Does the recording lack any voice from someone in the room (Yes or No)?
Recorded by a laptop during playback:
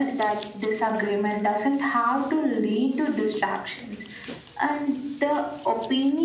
Yes